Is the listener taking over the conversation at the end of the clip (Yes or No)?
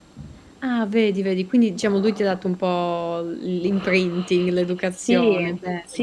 Yes